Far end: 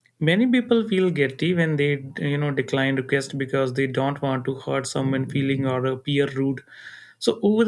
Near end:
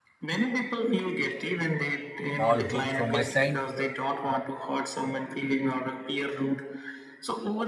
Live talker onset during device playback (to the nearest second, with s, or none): 2 s